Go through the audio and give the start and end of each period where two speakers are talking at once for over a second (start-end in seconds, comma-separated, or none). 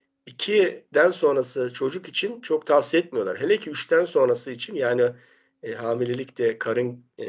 none